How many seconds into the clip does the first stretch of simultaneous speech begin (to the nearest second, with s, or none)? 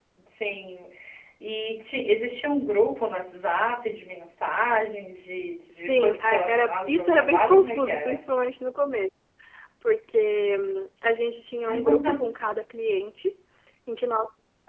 6 s